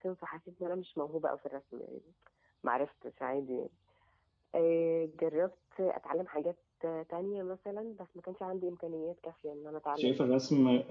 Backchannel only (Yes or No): No